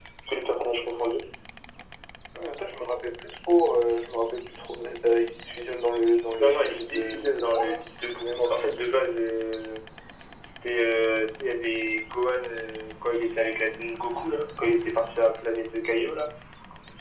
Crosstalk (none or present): present